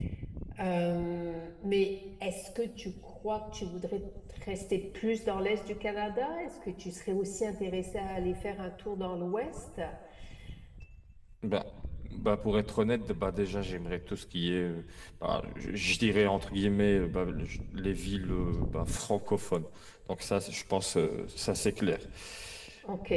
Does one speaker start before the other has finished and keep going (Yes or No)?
No